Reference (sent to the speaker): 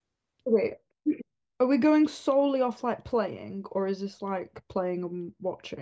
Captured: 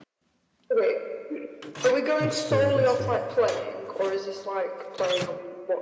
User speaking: Yes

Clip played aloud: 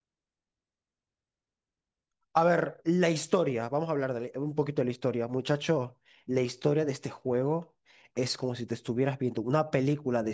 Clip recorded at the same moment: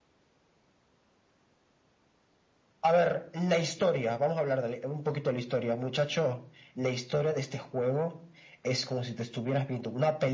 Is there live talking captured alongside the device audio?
No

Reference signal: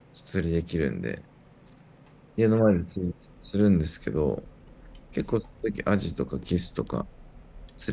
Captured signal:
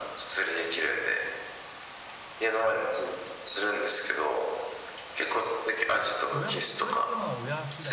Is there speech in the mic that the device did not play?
Yes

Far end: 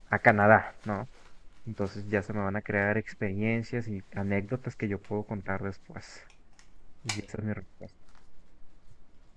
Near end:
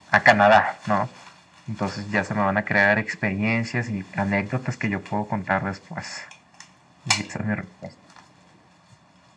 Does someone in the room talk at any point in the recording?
No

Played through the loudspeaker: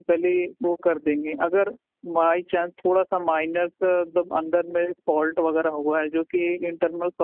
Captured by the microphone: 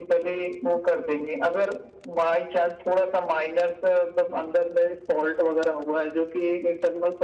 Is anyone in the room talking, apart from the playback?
No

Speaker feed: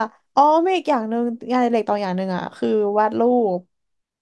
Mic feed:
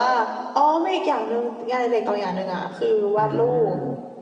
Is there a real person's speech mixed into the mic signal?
Yes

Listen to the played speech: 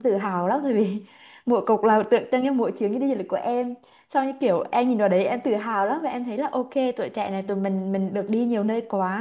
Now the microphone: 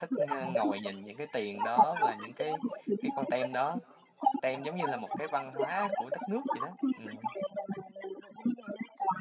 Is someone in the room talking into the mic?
Yes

